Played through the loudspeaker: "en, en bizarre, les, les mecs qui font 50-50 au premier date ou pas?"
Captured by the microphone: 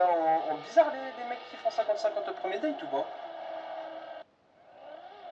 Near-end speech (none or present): none